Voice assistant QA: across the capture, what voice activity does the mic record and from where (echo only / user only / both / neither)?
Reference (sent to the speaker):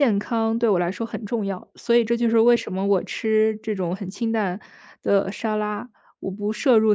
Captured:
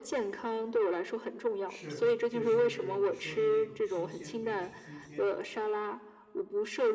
both